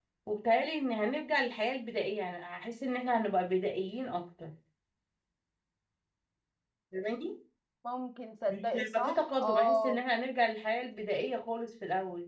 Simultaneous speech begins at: 8 s

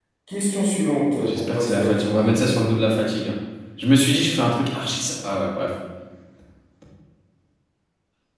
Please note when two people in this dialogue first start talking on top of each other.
1 s

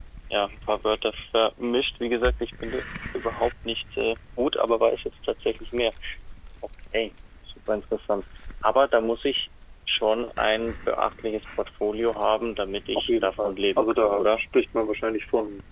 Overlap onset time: 13 s

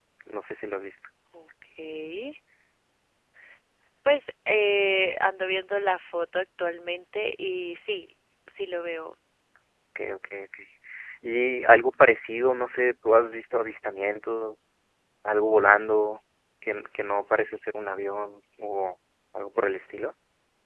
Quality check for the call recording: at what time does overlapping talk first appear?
none

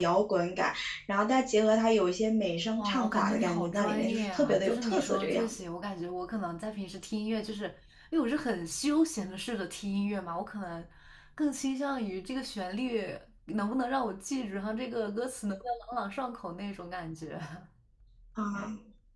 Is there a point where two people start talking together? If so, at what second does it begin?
3 s

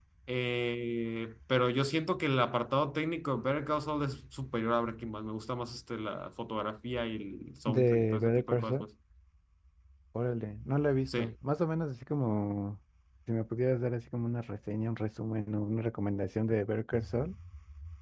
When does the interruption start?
8 s

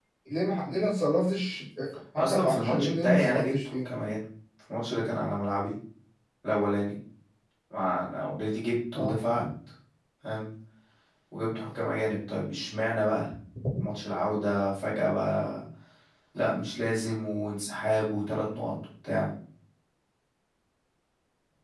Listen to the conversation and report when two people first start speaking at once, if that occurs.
2 s

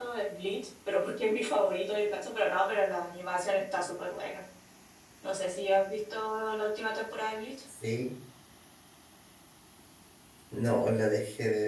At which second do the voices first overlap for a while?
none

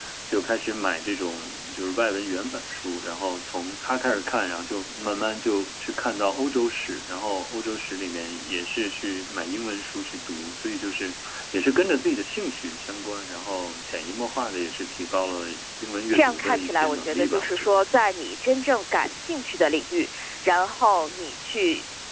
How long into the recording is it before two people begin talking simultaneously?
16 s

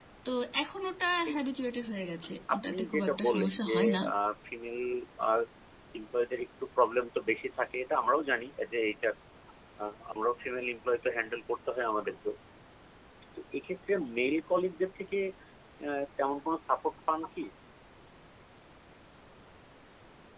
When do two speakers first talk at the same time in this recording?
2 s

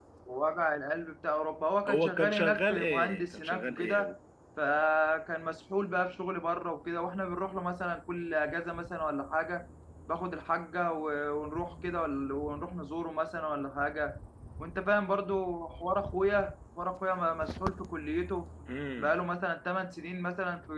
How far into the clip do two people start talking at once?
2 s

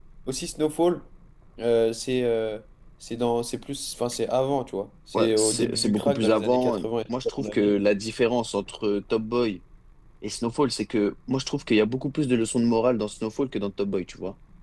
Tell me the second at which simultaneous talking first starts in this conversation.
5 s

